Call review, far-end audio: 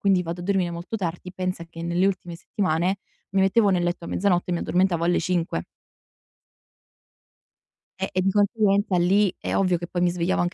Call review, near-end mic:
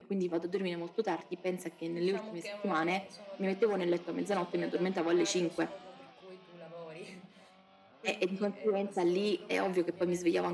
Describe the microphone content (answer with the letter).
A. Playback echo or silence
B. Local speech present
B